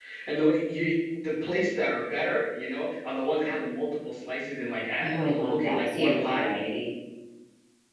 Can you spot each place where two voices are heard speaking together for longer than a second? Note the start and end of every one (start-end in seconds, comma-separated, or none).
5.0-6.5